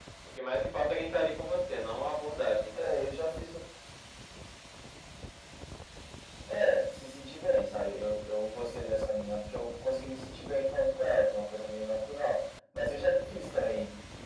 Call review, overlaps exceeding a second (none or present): none